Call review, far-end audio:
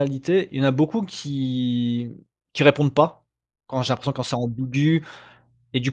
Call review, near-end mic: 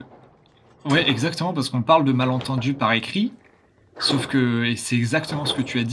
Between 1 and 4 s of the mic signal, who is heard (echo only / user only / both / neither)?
user only